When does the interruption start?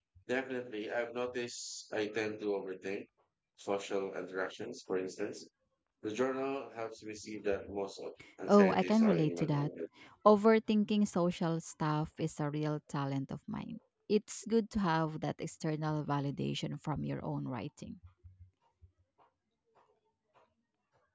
8.5 s

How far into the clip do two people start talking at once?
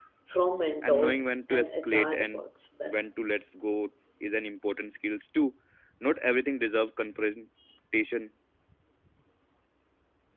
0.8 s

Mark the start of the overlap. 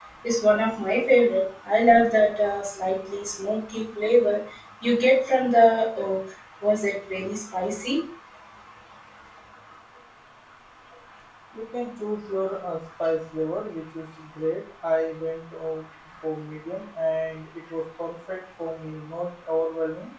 none

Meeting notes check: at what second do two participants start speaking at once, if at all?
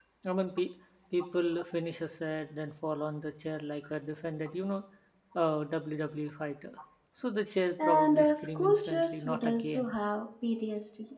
7.8 s

